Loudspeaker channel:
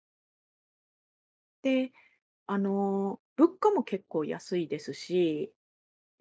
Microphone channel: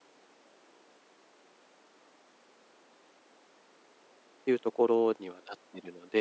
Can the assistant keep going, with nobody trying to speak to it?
No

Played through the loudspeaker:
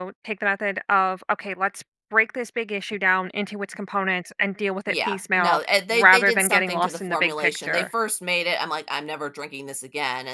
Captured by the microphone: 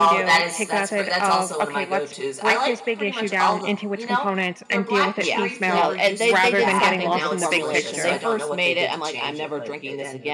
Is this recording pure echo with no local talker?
No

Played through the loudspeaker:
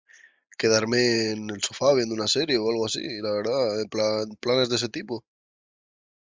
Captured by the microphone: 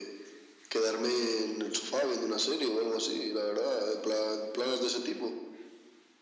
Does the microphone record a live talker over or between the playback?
No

